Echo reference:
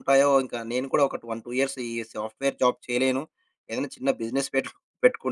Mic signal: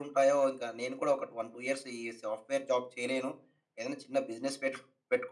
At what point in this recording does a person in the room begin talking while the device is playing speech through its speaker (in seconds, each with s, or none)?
none